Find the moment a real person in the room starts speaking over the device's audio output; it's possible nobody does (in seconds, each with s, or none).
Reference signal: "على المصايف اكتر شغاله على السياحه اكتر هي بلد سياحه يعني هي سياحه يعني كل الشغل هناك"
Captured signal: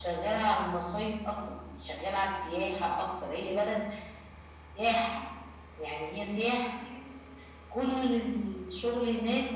none